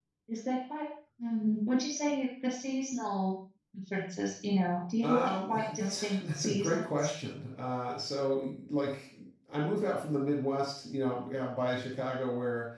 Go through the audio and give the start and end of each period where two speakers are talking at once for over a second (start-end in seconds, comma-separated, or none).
5.0-7.1